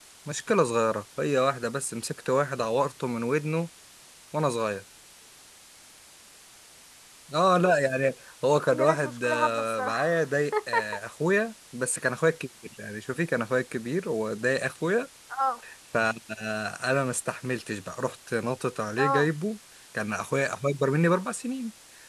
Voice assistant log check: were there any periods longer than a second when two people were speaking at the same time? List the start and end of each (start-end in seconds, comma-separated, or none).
8.7-10.1